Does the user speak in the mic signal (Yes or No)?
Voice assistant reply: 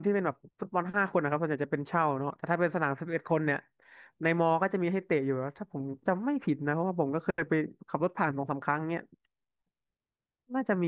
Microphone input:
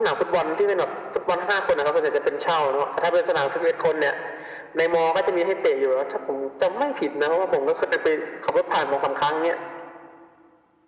No